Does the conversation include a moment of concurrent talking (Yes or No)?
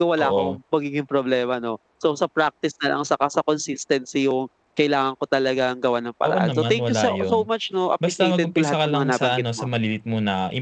Yes